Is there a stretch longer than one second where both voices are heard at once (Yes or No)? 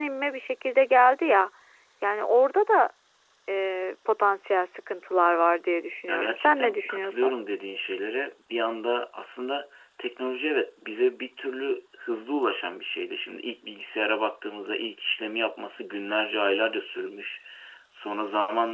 Yes